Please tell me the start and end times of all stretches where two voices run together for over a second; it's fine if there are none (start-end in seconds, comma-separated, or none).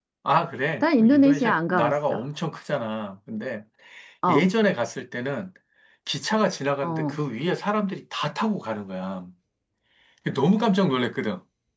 0.8-2.2